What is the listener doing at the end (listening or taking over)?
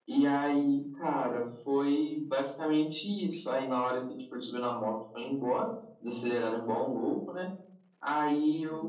listening